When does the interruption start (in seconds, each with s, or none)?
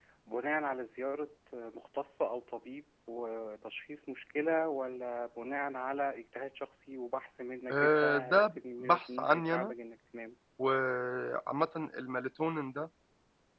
7.7 s